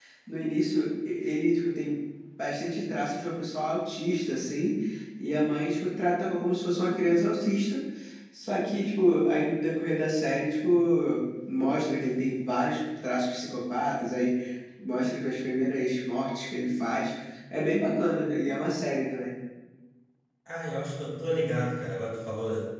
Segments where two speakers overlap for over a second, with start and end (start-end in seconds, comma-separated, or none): none